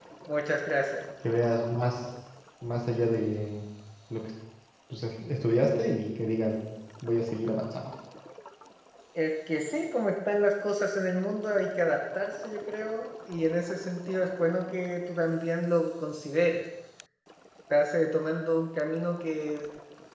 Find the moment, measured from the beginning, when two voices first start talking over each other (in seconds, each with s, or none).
none